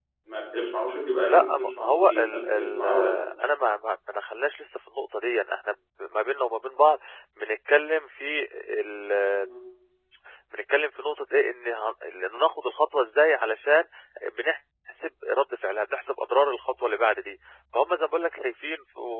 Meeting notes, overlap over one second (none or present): present